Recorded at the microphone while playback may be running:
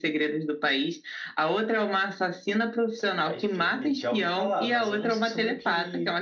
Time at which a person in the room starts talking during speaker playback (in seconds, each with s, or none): none